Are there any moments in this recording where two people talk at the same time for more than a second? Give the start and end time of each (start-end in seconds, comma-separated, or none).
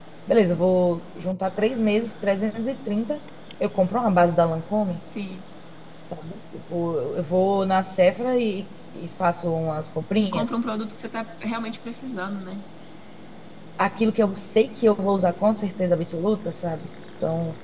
none